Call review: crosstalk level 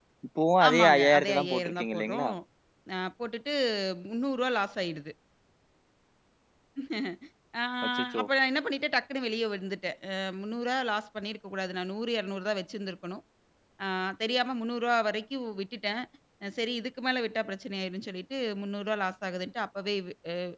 present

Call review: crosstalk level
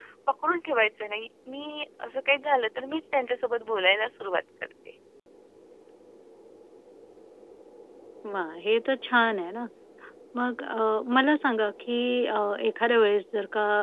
none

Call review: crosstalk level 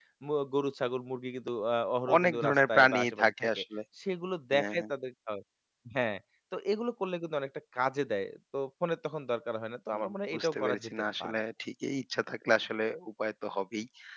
present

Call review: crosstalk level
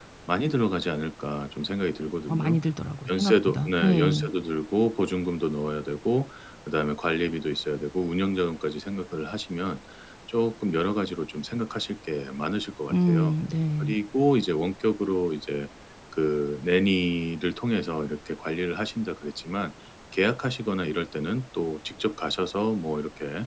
present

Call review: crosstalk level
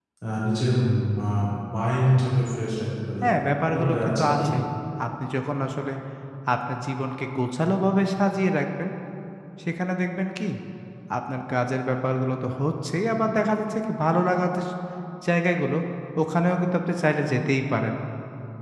present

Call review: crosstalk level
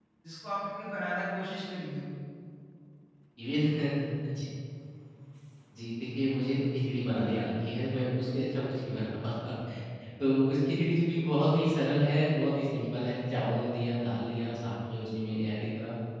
none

